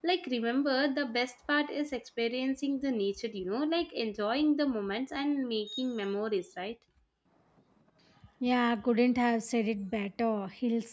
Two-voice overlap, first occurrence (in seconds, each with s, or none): none